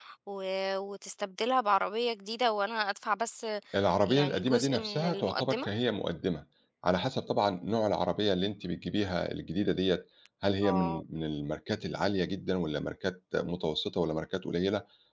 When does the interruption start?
4.1 s

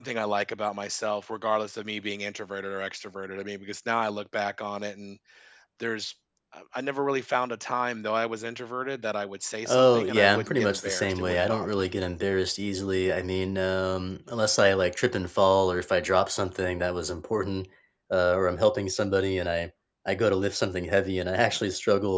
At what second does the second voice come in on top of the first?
9.7 s

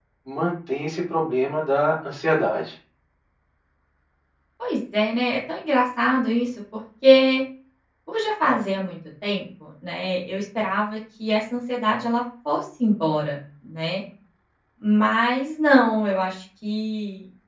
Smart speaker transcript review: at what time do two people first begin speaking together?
none

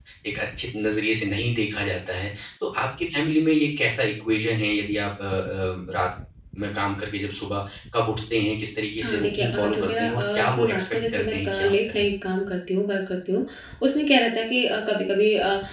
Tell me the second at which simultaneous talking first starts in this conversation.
8.9 s

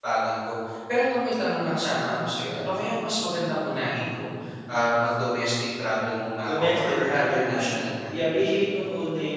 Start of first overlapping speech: 6.5 s

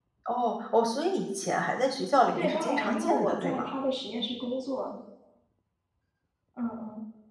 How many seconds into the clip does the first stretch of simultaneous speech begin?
2.4 s

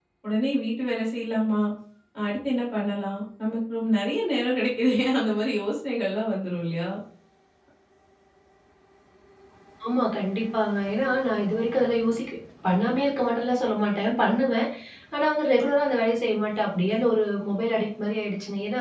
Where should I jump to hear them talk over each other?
none

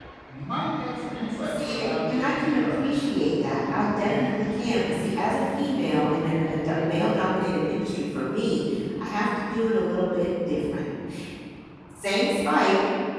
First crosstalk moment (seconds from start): 1.4 s

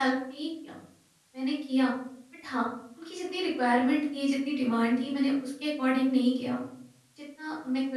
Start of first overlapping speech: none

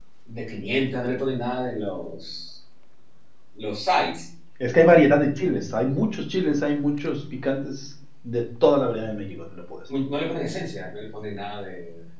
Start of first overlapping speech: none

